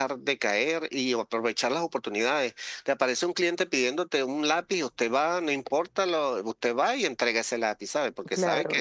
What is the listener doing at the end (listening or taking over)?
taking over